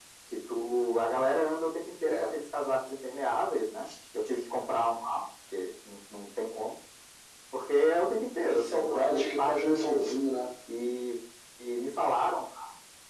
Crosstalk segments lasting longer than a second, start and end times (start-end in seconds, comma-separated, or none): 8.5-10.1